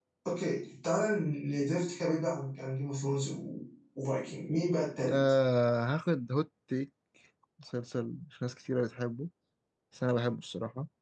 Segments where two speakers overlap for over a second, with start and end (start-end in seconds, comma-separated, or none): none